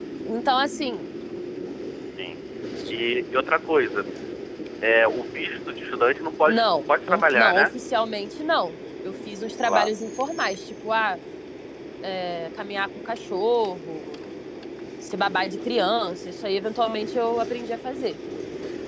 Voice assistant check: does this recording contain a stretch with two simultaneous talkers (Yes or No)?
Yes